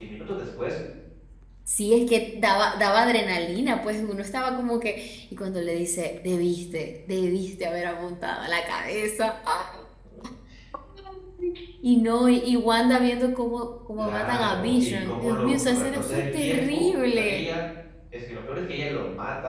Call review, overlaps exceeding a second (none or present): present